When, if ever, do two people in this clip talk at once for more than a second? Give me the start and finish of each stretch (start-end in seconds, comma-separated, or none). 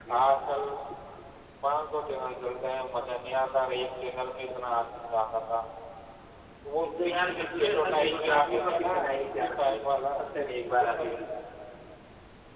6.8-10.1